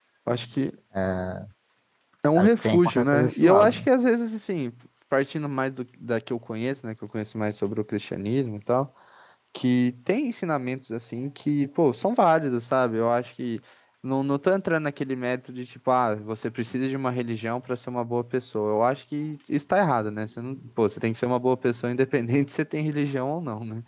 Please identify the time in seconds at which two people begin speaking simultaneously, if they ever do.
2.4 s

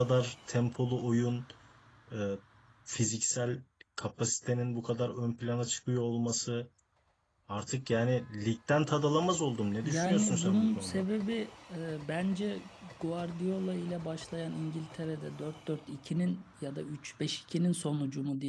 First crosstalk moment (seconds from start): 9.8 s

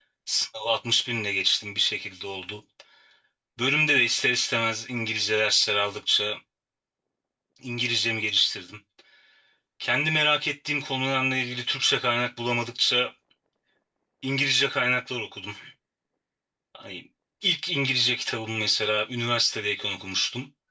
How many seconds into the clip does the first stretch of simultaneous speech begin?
none

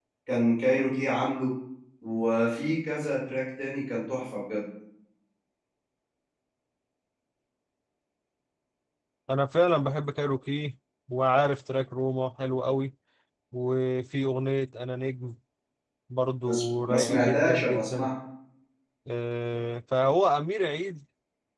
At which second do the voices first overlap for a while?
16.5 s

